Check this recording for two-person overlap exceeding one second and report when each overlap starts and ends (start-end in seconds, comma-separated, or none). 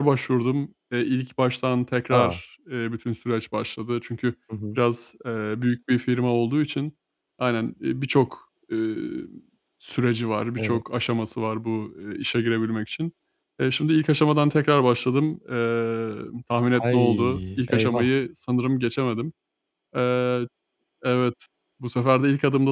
16.8-18.1